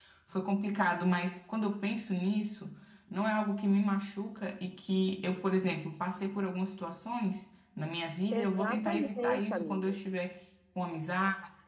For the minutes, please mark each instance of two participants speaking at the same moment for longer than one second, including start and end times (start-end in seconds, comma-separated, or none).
8.3-10.0